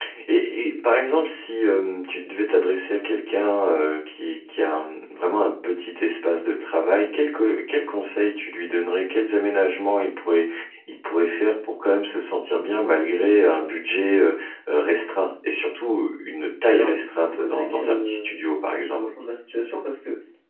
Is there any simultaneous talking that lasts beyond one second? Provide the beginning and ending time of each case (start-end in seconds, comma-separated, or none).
16.7-18.3